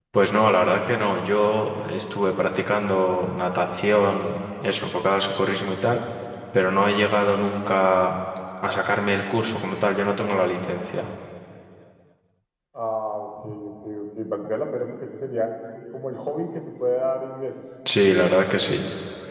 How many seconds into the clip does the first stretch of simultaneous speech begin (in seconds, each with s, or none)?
none